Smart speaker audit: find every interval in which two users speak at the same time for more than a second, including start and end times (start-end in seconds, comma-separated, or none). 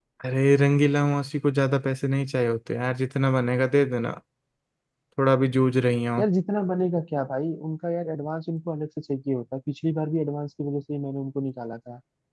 none